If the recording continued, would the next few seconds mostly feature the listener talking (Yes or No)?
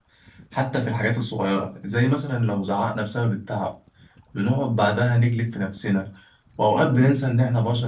No